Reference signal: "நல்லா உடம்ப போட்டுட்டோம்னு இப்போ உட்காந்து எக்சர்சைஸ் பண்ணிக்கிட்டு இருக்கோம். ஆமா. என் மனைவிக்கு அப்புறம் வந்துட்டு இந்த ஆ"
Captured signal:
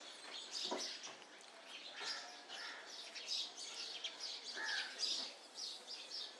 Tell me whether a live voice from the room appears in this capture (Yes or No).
No